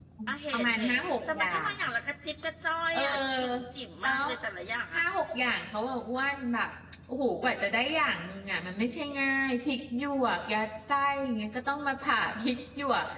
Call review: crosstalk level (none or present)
present